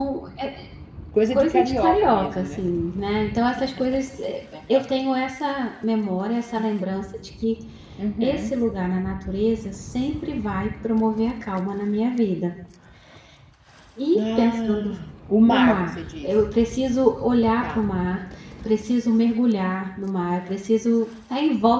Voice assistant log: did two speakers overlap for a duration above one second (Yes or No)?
Yes